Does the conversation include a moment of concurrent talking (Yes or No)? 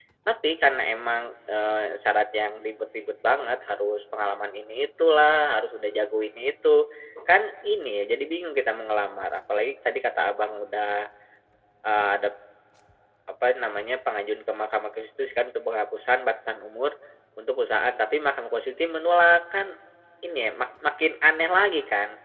No